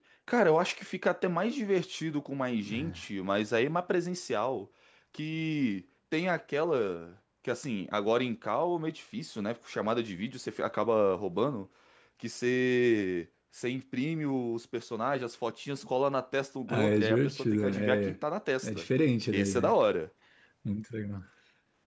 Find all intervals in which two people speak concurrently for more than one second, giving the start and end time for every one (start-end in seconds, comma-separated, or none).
16.7-18.1